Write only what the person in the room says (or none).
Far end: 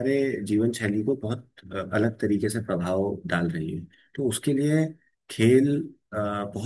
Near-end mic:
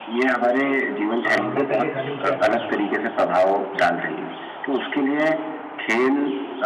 अ, मैं पहले रनिंग किया करता था